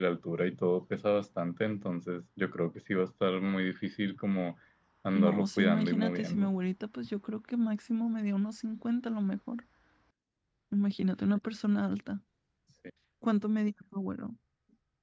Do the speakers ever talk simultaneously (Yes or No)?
Yes